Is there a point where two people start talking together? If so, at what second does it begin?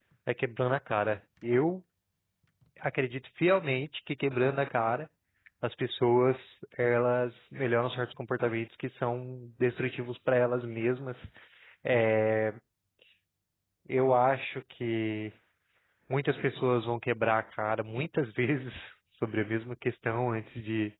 none

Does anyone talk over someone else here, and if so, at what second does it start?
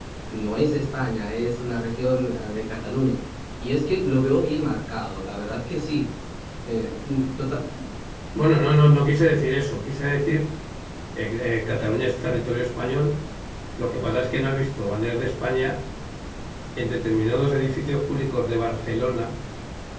none

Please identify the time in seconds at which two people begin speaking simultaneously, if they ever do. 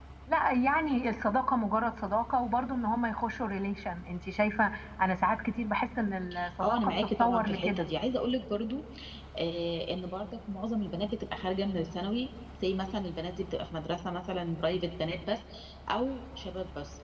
6.6 s

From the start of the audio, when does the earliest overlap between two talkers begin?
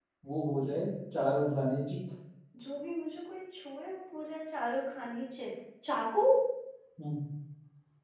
none

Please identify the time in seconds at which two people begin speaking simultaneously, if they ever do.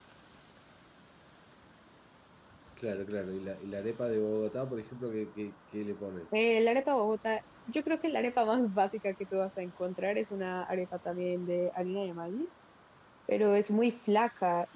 none

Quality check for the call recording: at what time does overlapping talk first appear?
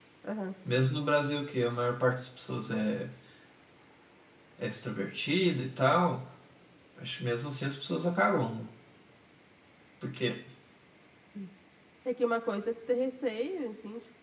none

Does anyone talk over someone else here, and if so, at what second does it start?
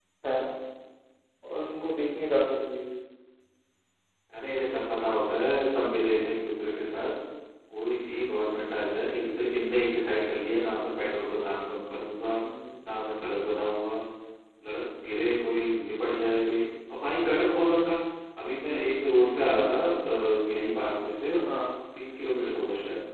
none

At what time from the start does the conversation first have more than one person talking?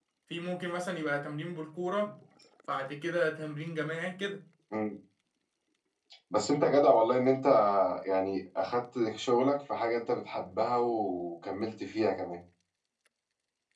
none

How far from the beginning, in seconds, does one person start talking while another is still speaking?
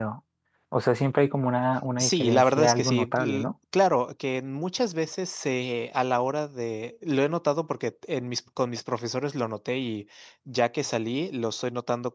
2.0 s

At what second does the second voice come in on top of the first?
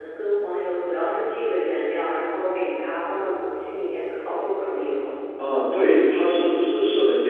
none

